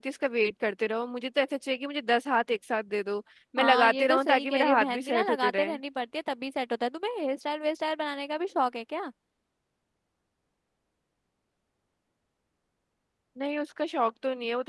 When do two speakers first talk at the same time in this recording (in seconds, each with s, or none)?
3.6 s